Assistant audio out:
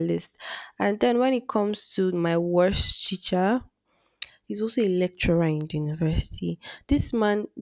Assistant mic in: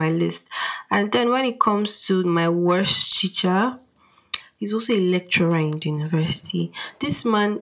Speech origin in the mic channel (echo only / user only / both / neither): echo only